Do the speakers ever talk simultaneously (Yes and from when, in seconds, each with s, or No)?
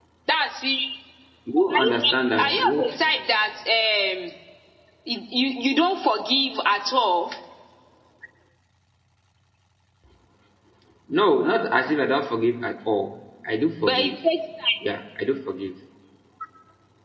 Yes, from 1.7 s